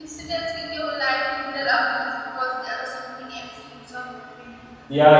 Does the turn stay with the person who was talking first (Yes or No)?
No